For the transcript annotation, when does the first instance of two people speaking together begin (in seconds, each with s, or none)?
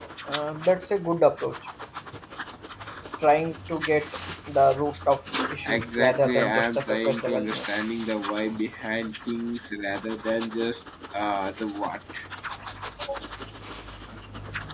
5.6 s